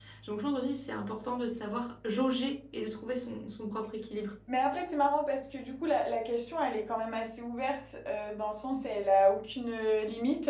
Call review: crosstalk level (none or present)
none